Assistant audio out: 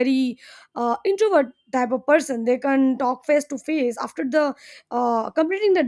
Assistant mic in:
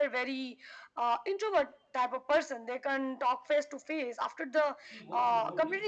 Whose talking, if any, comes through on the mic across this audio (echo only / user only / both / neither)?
both